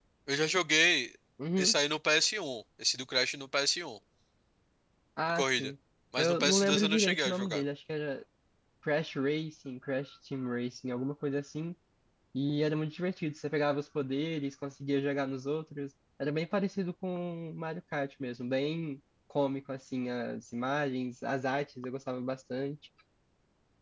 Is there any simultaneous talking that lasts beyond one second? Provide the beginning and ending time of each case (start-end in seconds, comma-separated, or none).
6.2-7.6